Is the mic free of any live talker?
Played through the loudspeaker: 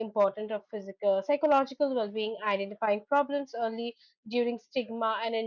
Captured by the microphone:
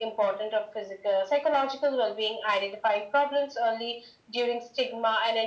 Yes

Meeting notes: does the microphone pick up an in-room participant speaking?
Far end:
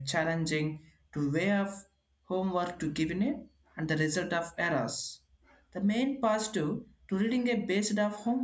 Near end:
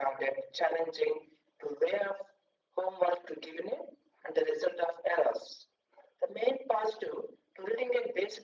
No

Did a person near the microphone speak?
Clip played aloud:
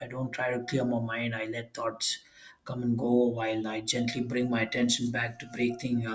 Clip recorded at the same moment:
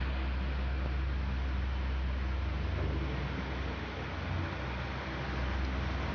No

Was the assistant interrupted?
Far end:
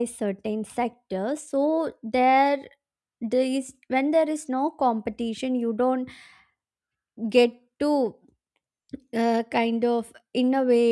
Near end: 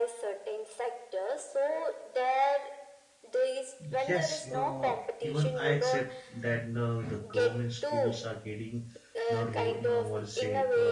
Yes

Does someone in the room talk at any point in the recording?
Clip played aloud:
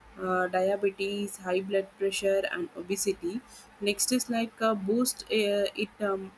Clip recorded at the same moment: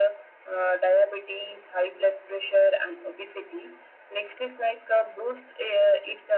No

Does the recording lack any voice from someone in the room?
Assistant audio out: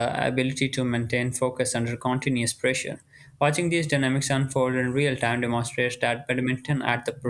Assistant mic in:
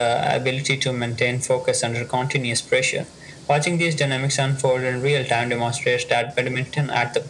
Yes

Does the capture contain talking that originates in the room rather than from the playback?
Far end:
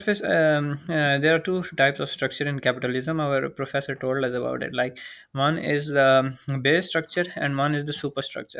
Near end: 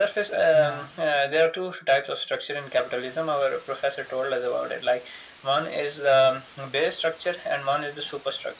Yes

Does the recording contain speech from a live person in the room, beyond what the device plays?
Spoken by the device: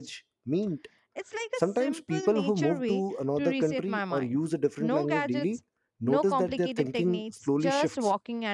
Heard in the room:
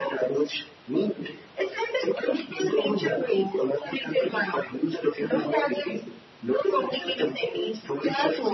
No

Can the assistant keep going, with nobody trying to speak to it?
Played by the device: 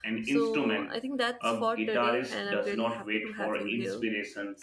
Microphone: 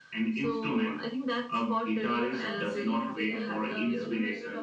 No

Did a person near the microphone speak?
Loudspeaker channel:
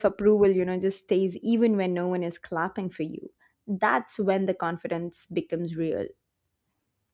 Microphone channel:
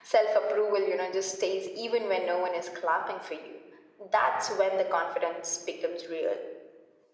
No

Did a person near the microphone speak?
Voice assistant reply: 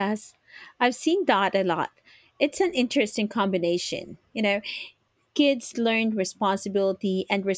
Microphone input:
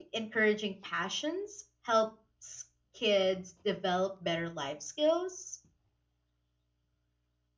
Yes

